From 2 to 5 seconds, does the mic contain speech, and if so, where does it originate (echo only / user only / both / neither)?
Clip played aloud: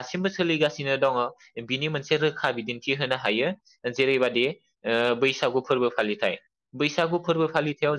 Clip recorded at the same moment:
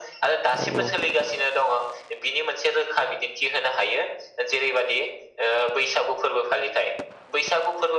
echo only